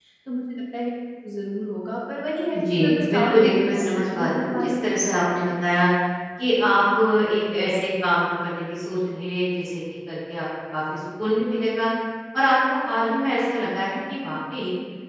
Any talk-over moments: Yes, from 2.5 s

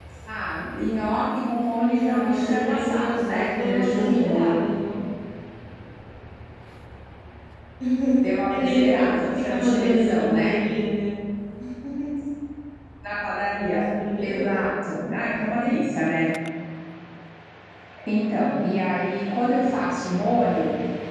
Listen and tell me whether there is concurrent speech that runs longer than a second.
Yes, from 2.0 s

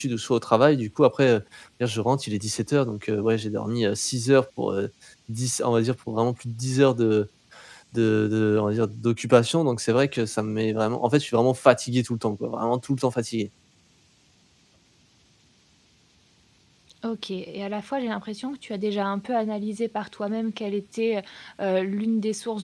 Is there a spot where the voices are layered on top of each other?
No

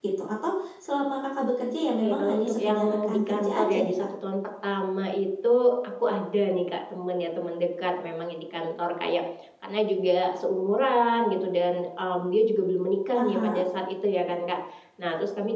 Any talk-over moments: Yes, from 2.0 s

